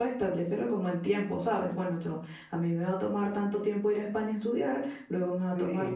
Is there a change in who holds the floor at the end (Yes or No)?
Yes